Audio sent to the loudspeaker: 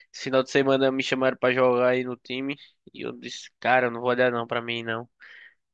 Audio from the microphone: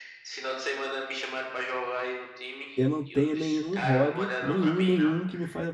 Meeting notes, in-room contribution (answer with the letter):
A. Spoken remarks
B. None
A